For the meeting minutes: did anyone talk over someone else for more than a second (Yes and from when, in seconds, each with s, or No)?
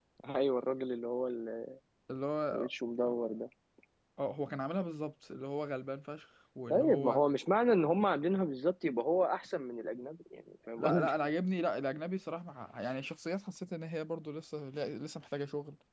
No